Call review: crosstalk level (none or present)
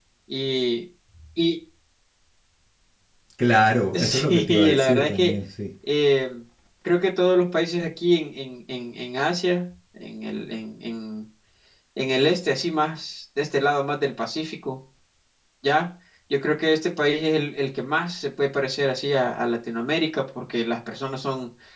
present